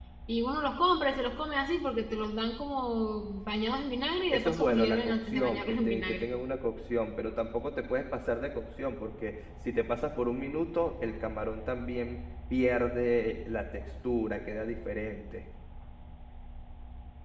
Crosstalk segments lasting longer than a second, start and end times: 4.3-6.3

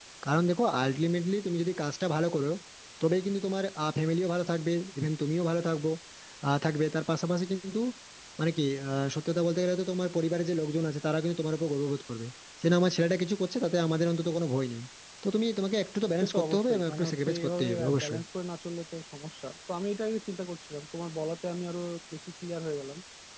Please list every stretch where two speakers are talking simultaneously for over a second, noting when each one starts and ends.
16.2-18.2

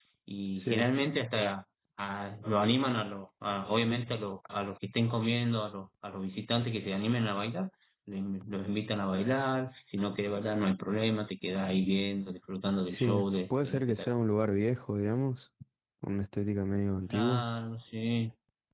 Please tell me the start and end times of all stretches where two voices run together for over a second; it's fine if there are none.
12.9-14.1

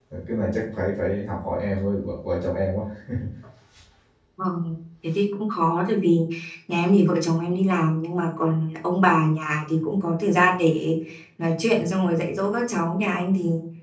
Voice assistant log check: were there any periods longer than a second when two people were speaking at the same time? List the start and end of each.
none

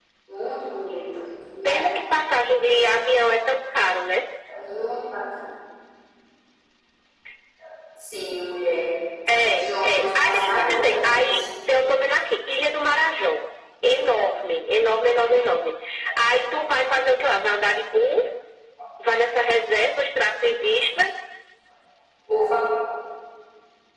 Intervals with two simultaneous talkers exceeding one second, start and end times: 9.4-11.4

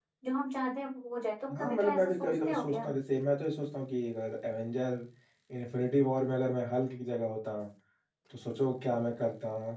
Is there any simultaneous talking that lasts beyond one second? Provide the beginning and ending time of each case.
1.6-2.8

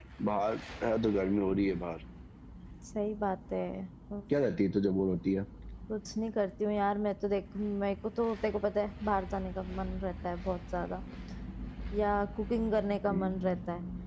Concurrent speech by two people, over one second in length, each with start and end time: none

